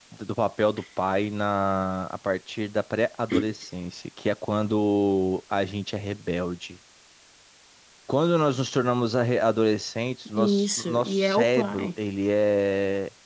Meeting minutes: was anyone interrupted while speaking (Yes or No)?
Yes